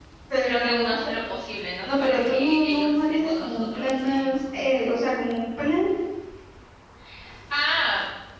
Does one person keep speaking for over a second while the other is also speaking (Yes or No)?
Yes